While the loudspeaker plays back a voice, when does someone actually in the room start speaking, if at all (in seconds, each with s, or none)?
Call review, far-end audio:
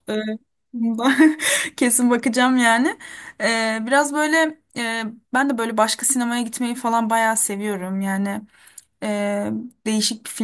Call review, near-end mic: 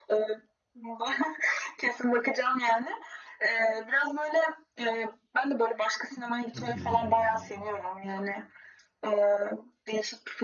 6.5 s